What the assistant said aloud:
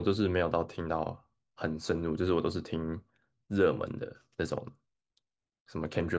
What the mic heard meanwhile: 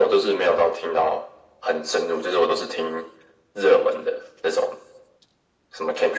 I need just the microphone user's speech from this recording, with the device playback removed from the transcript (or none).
none